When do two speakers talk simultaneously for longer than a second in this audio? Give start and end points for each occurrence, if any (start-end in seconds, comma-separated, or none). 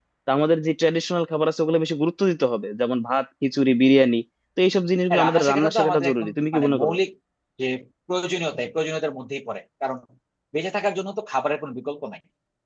5.1-6.9